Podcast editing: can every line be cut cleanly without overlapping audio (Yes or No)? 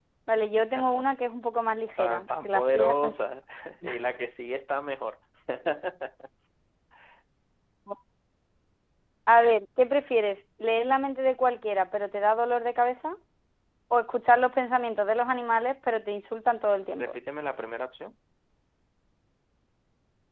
No